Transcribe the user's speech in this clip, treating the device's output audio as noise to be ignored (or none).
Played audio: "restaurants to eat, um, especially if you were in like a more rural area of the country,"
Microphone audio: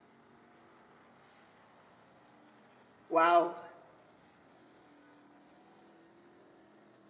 Wow.